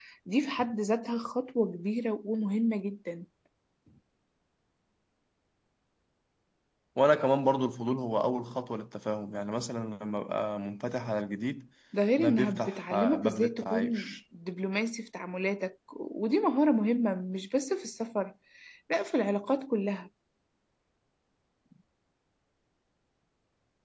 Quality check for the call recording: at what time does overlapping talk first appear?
12.2 s

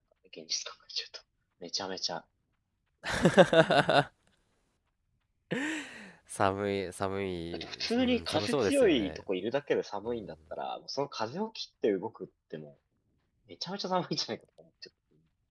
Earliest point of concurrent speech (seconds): 7.5 s

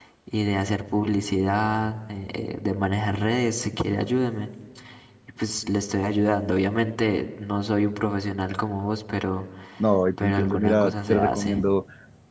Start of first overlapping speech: 10.2 s

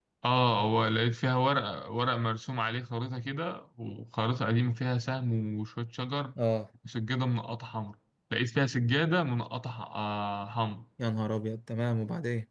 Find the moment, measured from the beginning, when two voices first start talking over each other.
none

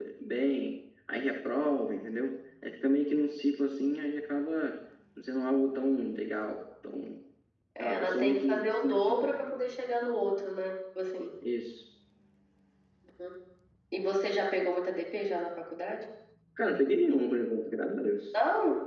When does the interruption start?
7.8 s

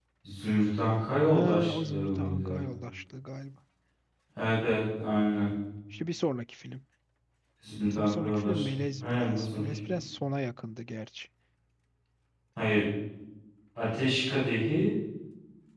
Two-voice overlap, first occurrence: 1.3 s

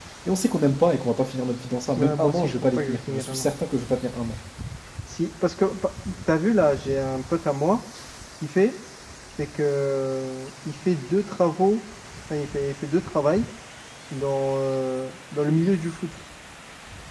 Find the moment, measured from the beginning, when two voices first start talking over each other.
1.9 s

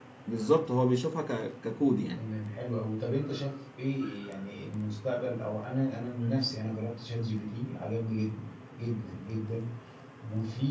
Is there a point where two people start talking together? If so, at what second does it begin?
none

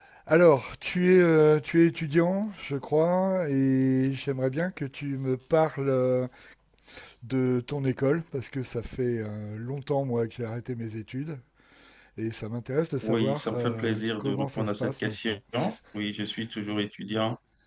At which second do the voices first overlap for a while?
13.0 s

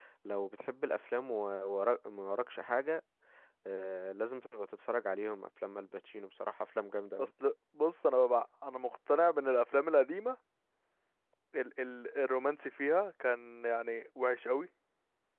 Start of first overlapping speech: none

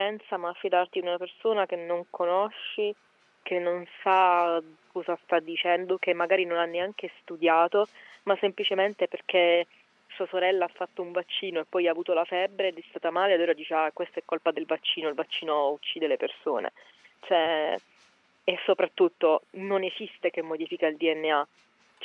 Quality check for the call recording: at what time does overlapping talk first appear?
none

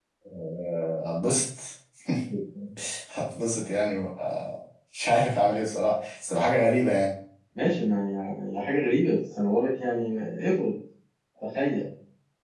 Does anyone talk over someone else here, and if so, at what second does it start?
none

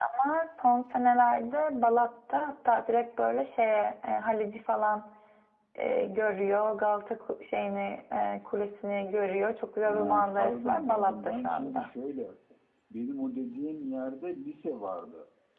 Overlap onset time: 9.8 s

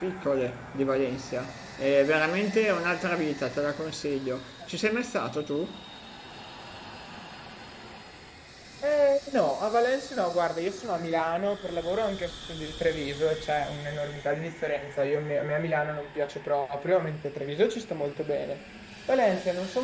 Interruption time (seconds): none

